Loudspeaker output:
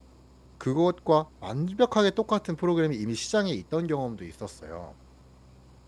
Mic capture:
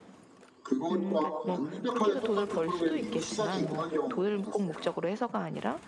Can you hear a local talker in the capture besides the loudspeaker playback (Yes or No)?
Yes